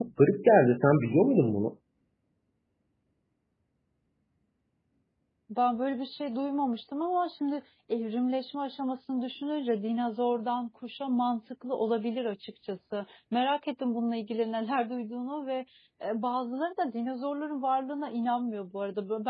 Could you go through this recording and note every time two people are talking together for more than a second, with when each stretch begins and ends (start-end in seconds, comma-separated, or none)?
none